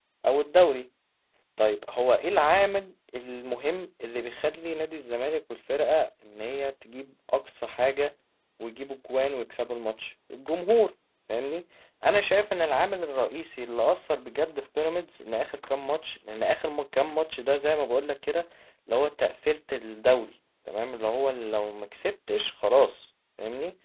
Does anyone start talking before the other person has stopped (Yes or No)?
No